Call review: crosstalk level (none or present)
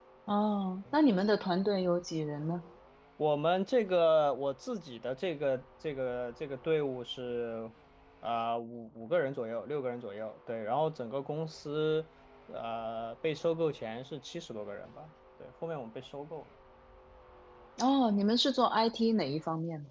none